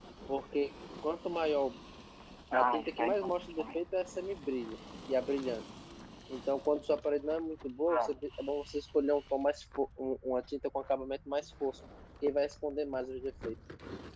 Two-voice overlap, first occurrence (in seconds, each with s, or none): 2.5 s